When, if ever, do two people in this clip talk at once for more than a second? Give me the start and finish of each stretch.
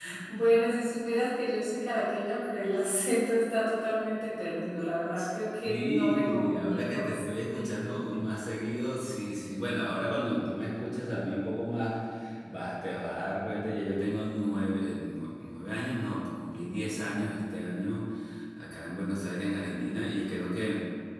5.6-7.0

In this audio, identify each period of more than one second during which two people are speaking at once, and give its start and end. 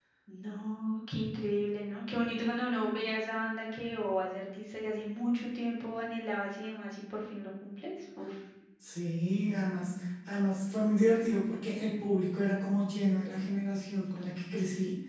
none

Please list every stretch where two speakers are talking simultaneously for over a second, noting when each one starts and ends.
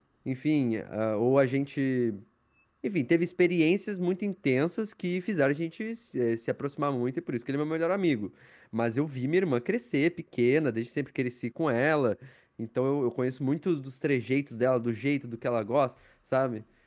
none

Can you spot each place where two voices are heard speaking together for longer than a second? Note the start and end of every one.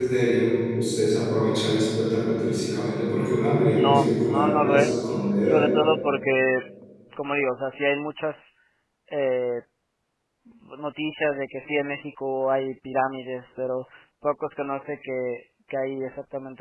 3.7-5.0

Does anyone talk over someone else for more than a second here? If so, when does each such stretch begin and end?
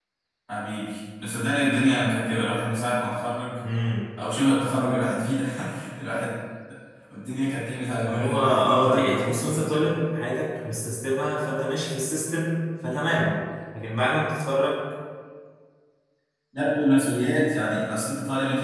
8.0-9.9

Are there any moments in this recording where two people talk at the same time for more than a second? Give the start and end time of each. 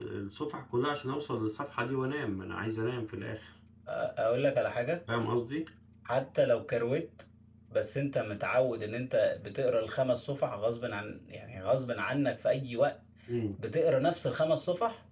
none

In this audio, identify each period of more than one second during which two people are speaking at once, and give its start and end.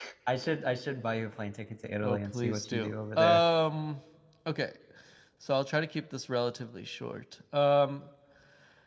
2.0-3.4

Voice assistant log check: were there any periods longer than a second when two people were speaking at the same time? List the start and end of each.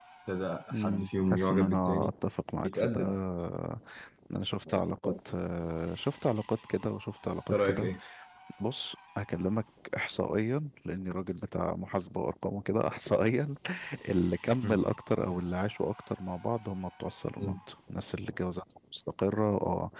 0.7-2.1

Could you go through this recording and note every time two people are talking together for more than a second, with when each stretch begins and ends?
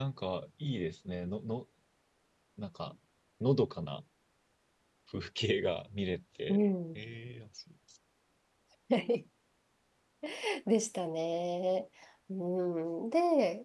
none

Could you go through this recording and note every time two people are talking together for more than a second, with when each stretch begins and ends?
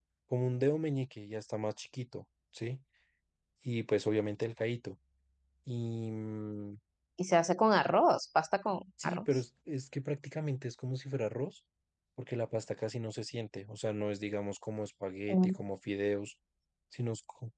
none

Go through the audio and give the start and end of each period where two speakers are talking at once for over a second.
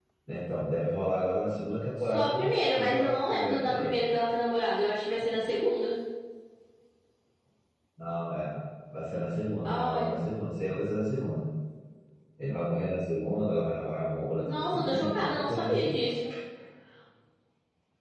2.1-4.0, 14.5-15.9

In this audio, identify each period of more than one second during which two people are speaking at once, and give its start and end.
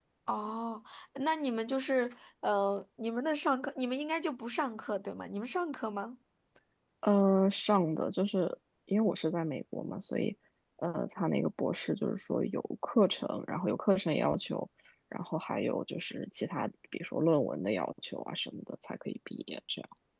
none

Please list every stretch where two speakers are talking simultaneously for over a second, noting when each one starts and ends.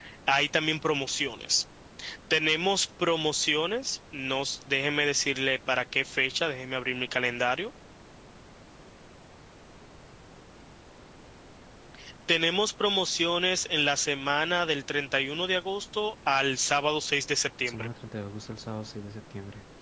none

